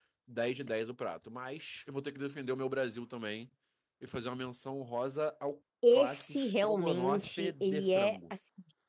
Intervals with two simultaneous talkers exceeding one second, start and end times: 5.9-8.3

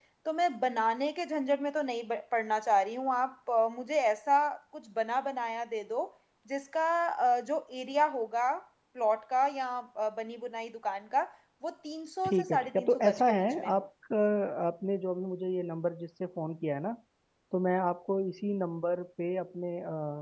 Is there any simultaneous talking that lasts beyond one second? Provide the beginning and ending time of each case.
12.2-13.8

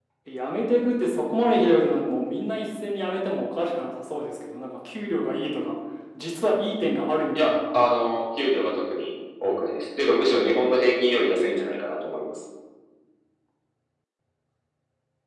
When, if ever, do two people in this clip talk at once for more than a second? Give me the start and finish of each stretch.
none

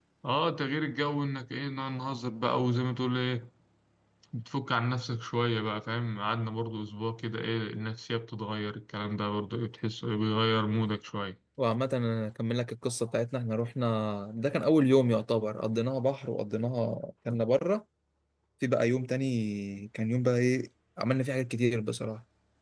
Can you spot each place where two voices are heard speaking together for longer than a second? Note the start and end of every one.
none

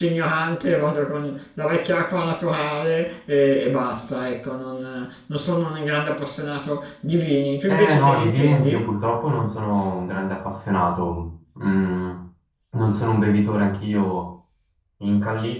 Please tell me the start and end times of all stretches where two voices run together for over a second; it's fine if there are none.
7.7-8.9

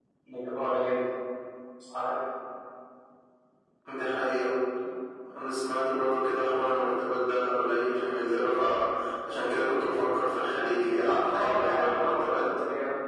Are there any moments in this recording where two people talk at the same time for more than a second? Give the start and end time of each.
11.3-12.5

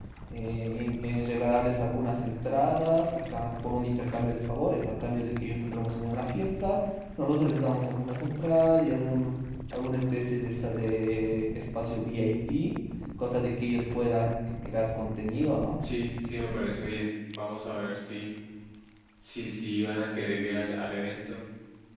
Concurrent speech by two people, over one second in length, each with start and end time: none

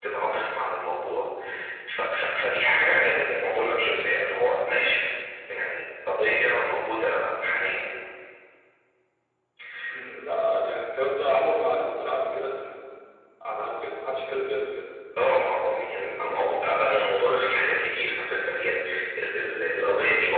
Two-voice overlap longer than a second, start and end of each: none

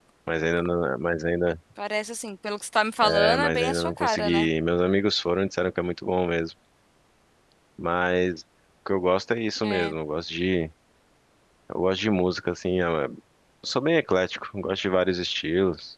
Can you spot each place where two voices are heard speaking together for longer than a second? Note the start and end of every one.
3.0-4.5

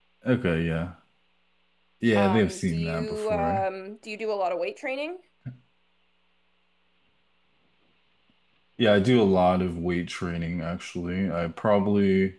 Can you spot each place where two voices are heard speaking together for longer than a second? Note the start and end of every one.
2.1-3.6

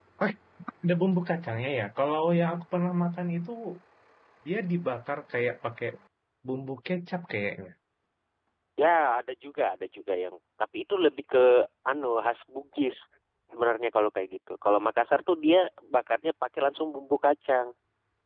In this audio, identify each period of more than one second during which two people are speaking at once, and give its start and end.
none

